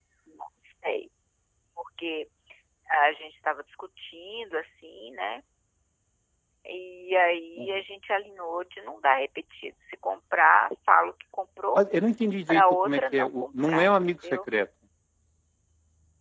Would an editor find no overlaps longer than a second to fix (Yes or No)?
No